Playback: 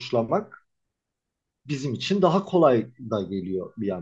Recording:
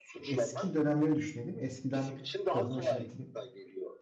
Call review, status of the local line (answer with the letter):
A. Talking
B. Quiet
A